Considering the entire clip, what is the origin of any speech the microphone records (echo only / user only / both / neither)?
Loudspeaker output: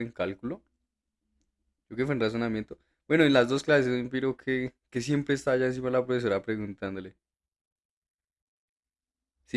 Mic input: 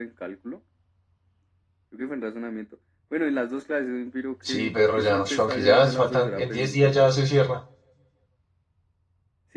both